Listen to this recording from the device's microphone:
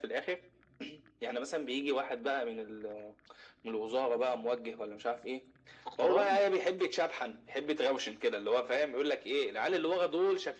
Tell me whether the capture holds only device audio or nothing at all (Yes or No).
No